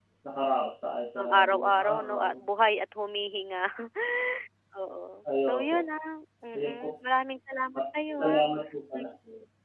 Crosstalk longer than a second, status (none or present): present